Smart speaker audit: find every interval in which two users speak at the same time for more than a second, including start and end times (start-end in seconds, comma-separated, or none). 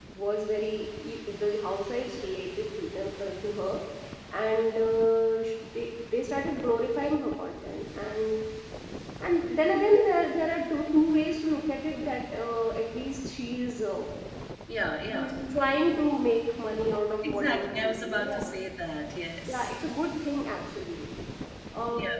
17.3-18.6